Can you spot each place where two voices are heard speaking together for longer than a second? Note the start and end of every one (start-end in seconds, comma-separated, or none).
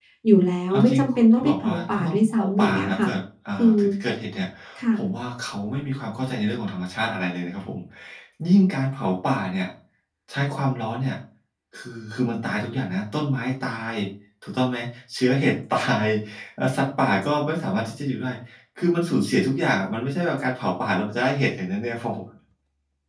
0.7-3.1